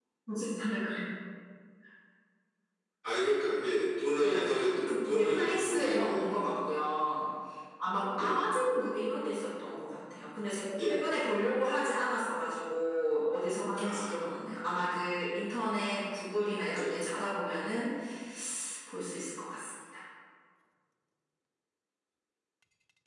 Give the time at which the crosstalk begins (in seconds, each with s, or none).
4.1 s